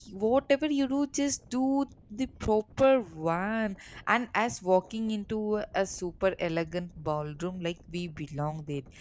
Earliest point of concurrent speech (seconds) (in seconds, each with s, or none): none